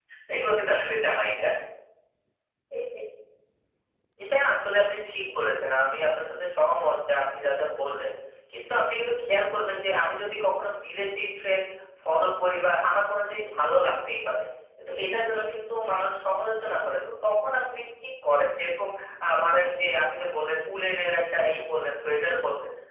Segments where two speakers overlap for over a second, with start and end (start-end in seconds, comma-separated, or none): none